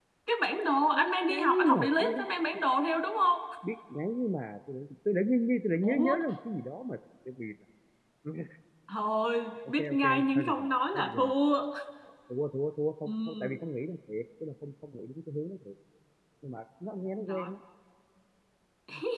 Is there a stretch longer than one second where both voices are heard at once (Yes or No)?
Yes